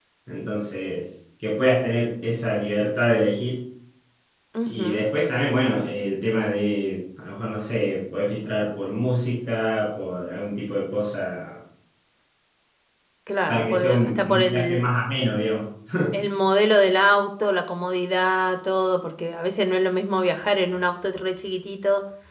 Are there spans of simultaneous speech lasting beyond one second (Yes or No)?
Yes